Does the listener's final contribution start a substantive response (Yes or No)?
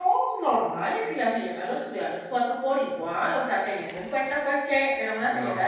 No